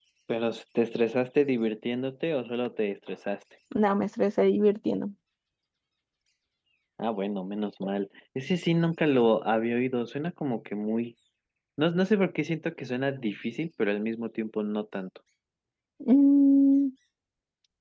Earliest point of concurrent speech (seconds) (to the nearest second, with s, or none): none